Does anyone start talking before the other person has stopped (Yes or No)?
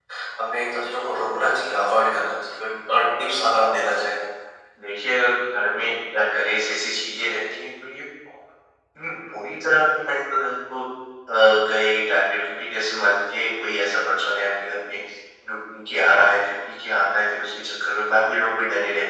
No